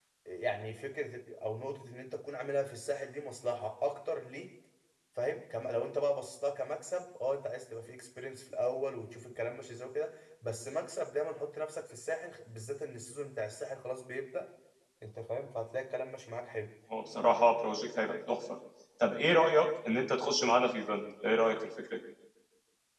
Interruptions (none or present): none